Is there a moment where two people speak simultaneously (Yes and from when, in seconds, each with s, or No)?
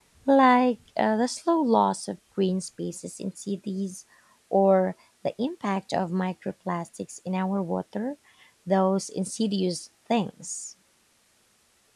No